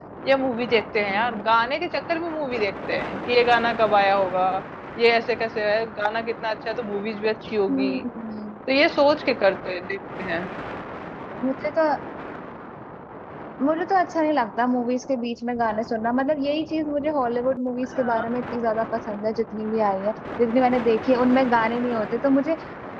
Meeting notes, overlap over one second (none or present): none